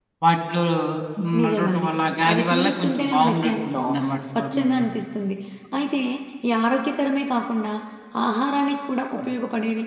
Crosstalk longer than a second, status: present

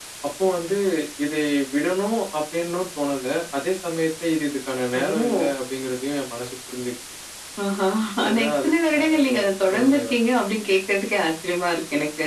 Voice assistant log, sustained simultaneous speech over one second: present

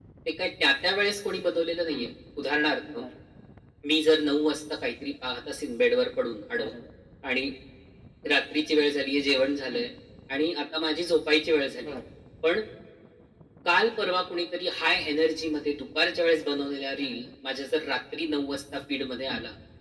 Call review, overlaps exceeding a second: none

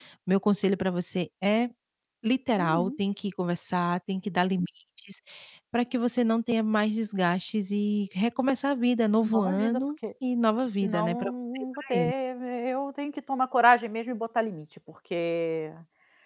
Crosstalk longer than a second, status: present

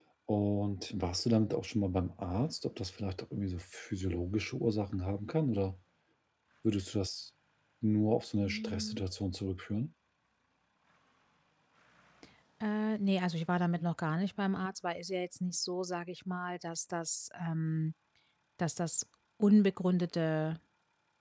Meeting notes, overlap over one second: none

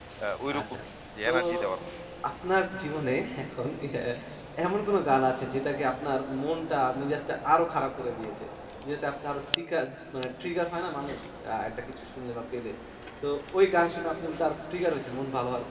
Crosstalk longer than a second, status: none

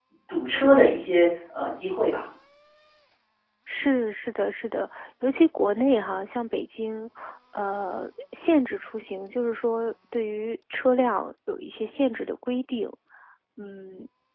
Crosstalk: none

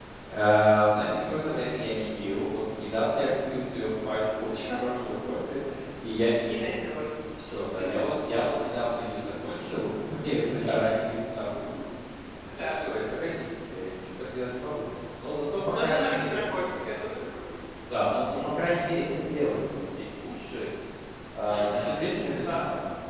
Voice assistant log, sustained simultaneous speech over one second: present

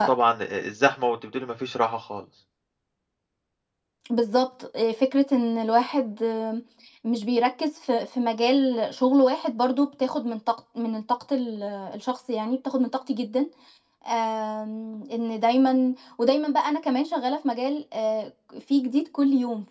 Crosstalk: none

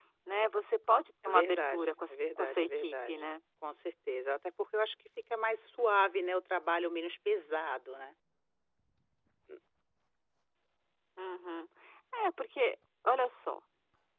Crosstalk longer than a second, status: present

